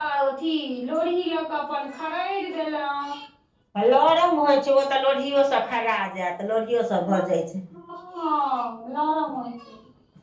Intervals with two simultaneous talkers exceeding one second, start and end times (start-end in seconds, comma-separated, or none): none